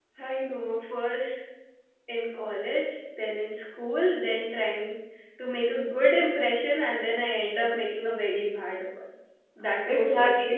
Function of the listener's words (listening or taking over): taking over